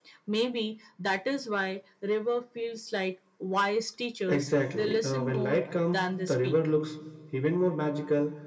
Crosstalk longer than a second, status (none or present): present